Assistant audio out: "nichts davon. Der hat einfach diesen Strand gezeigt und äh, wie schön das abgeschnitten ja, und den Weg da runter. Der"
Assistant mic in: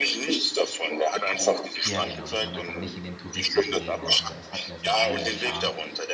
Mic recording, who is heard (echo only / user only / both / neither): both